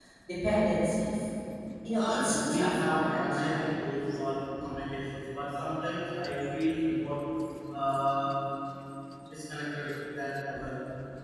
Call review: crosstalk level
present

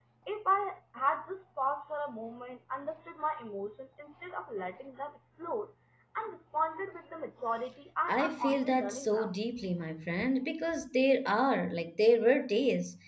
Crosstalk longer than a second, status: present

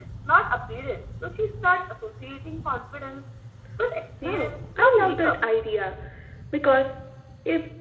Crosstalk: present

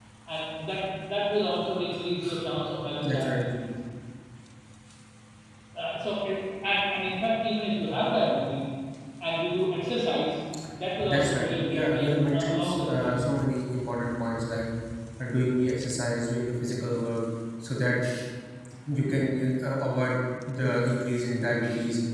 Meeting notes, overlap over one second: present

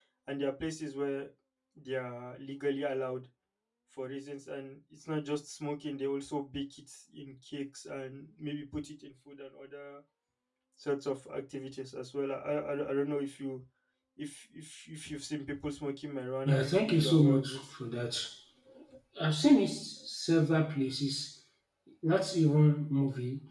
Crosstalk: present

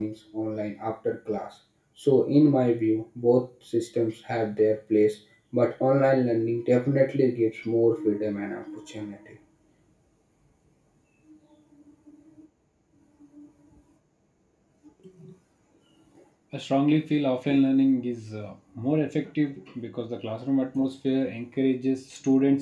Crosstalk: none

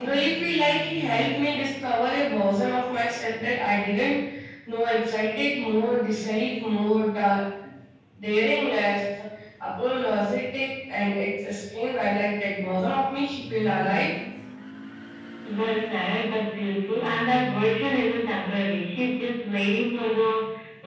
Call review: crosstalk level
none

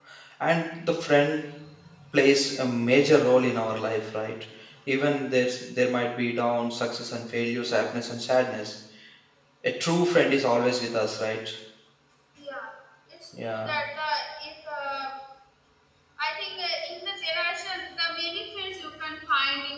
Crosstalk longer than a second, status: none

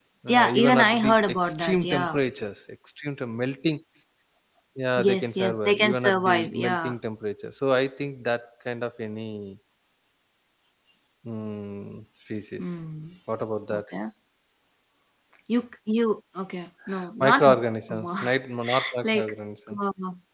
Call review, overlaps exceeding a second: present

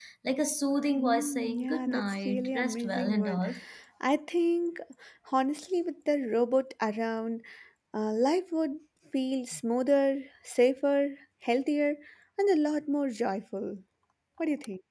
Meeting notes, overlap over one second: present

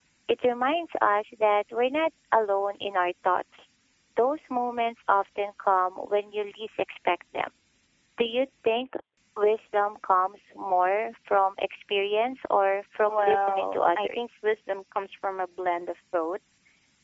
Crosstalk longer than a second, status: present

